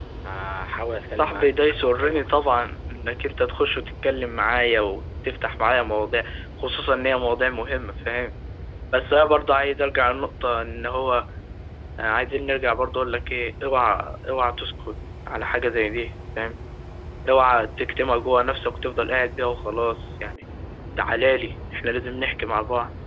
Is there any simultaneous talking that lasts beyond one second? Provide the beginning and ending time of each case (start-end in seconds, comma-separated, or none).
1.0-2.5